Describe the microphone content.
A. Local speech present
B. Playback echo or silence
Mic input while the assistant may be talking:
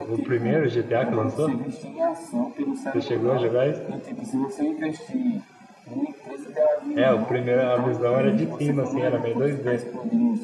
A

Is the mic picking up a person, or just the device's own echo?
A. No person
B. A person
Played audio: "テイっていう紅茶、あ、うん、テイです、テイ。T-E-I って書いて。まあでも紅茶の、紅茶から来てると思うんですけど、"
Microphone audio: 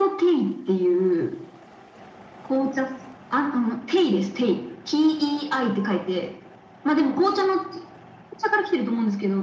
A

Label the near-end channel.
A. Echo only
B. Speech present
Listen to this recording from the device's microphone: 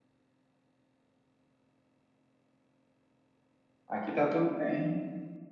B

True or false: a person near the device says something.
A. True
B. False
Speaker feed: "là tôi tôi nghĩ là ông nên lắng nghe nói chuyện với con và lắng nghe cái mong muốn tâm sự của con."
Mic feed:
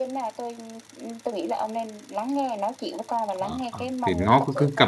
A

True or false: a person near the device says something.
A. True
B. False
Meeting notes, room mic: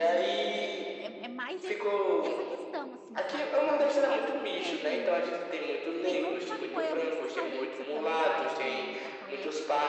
A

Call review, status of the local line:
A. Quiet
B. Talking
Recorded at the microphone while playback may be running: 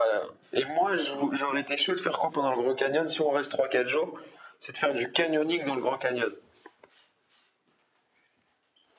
A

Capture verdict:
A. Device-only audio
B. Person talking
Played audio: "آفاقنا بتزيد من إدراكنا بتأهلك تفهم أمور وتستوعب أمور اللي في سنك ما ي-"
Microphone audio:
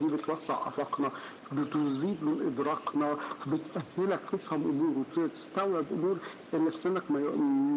A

